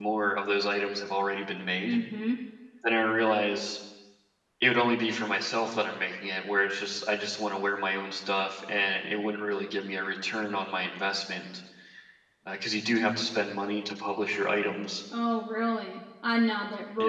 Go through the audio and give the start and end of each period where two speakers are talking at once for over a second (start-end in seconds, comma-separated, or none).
none